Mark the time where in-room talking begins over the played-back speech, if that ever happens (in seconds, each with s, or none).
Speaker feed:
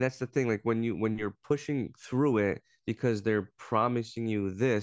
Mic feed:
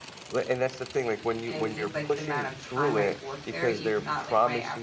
1.4 s